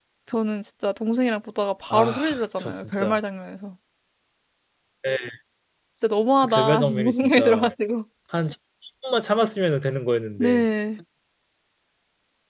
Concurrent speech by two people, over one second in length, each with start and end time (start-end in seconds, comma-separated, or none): 1.9-3.2, 6.4-7.7